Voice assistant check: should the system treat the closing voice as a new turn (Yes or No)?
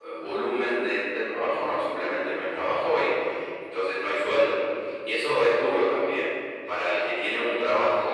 No